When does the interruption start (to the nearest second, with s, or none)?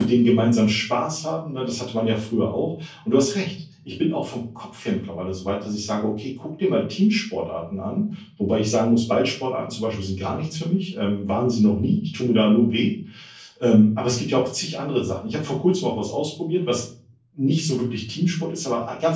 none